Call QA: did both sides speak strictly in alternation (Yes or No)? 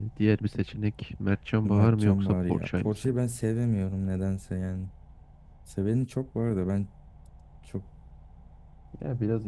No